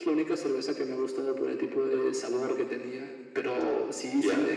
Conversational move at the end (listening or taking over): listening